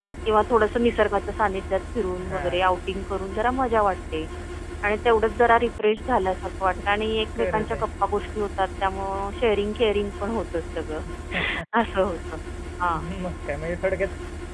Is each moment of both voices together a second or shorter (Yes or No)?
Yes